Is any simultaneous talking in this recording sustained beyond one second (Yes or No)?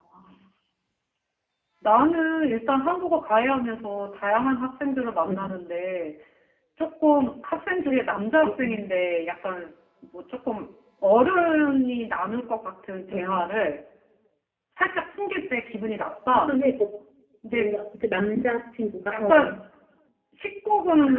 No